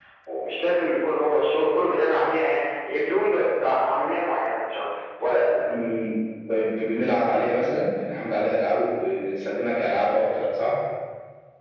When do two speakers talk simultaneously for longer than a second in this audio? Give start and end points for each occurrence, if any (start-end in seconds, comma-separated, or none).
none